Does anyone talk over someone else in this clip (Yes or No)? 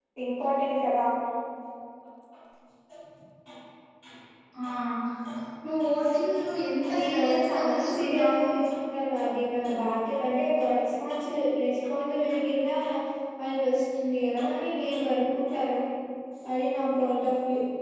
Yes